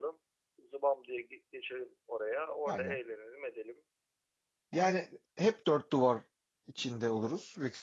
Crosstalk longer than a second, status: none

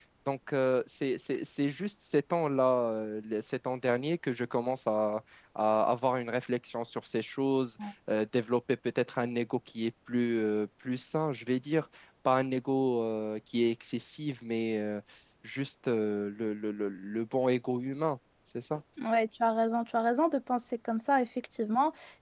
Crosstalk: none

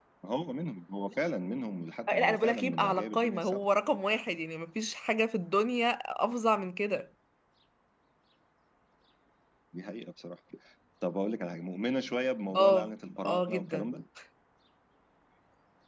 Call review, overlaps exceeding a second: present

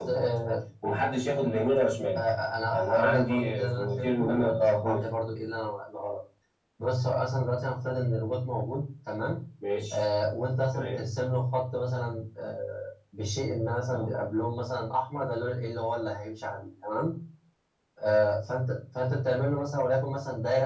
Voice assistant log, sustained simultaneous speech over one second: present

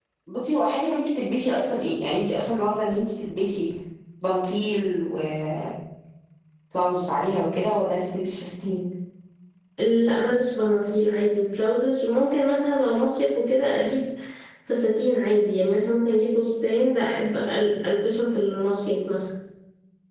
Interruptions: none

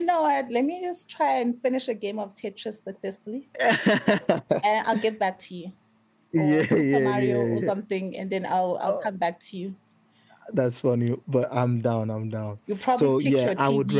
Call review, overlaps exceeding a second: present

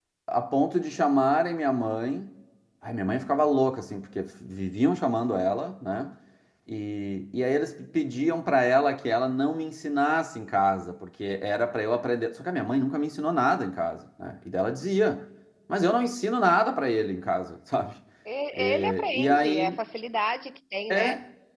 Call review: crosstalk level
present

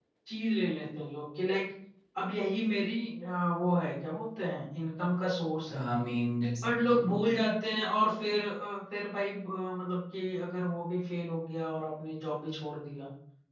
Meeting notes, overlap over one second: none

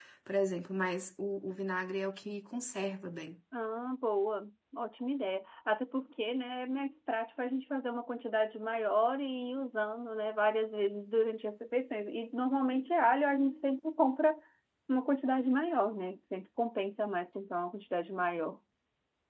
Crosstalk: none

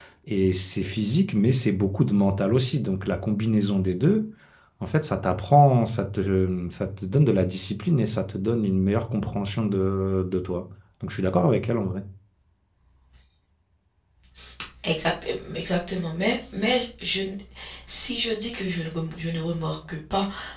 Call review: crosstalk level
none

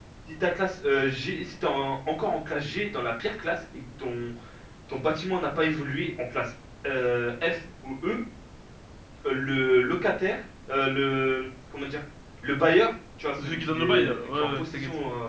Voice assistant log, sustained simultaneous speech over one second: present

